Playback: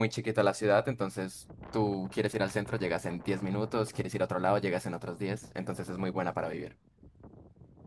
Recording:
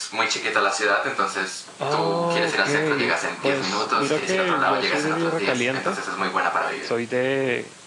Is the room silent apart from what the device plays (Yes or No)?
No